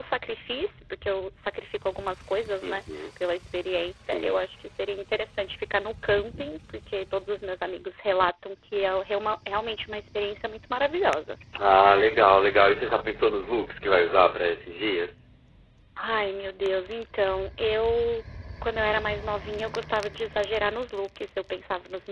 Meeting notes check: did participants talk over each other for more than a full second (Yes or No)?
No